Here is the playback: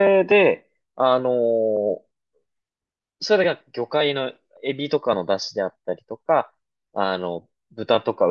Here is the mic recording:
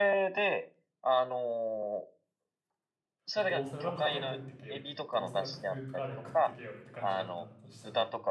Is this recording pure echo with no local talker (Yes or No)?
No